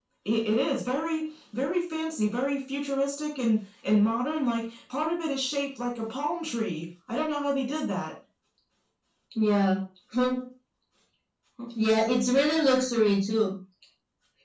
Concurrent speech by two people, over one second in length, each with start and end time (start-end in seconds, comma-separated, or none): none